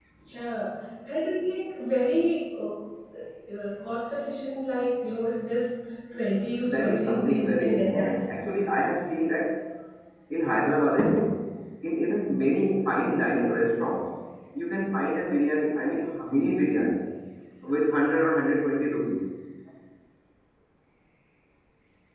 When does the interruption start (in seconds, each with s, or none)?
6.7 s